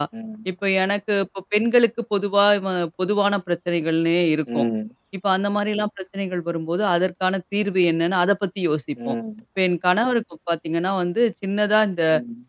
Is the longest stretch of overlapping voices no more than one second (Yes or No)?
Yes